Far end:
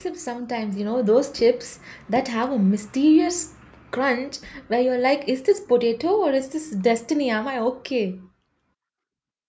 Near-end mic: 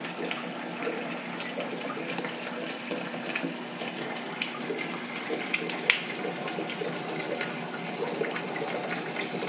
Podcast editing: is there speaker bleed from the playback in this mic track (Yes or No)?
No